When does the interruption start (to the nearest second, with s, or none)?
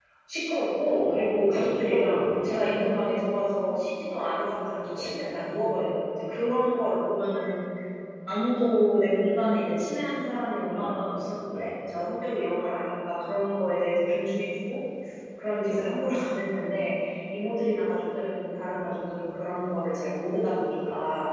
1 s